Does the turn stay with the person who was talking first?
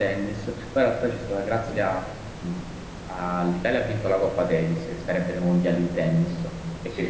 Yes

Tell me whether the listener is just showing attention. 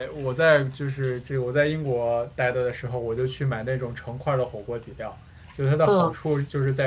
Yes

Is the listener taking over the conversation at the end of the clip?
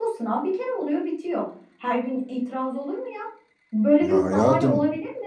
No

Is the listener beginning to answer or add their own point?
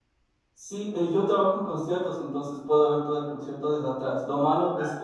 No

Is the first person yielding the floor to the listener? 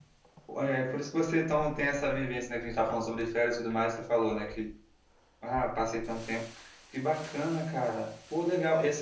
No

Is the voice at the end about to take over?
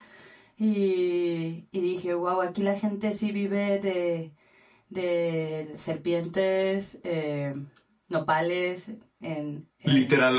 Yes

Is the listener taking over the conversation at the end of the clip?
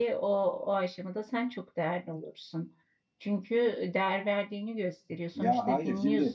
Yes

